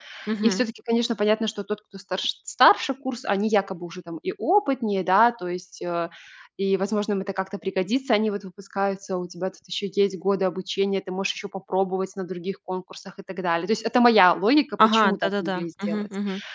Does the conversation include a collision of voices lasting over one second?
Yes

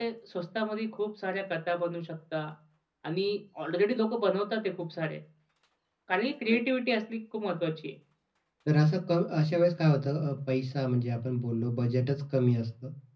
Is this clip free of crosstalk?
Yes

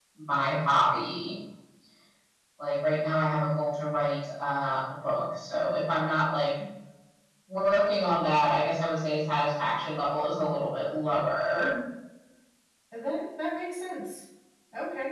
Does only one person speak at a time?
Yes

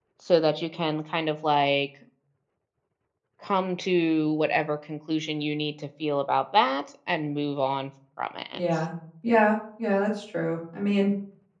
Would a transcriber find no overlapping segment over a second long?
Yes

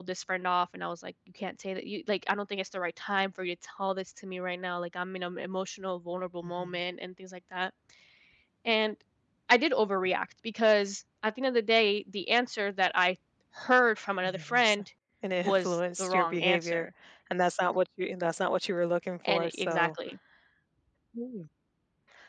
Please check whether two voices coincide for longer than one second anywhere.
Yes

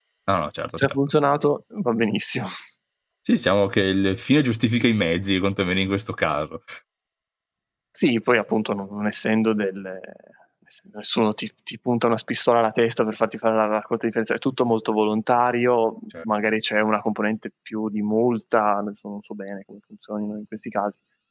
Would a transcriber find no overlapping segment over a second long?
Yes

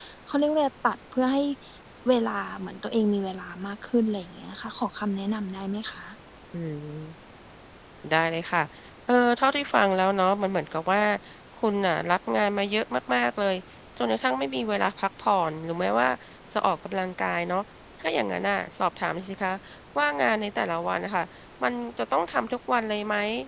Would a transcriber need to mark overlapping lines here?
No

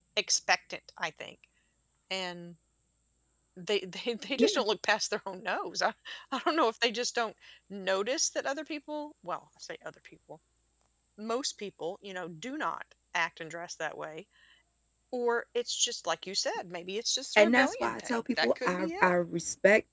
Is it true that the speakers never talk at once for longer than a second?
No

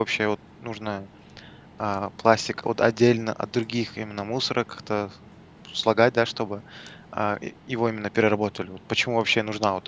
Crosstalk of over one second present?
No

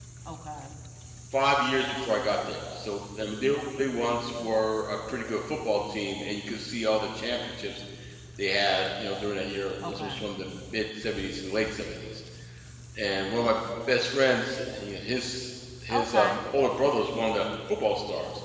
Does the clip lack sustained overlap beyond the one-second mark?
Yes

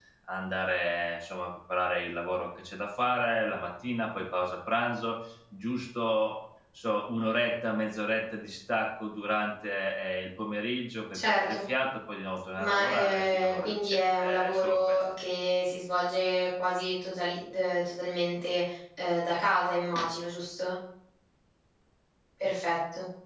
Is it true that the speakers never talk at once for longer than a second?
No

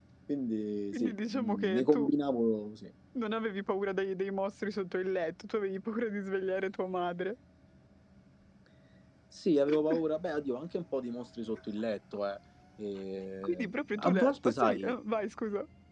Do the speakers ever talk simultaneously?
Yes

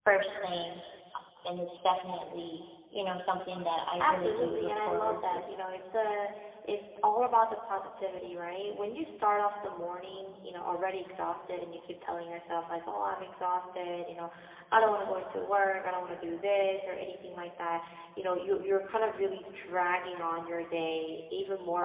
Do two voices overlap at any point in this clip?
Yes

